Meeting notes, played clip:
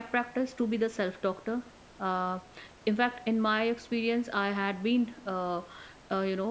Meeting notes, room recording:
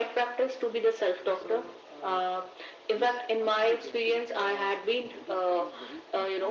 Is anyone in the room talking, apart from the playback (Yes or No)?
Yes